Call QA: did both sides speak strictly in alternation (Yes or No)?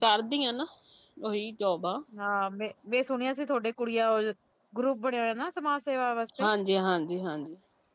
Yes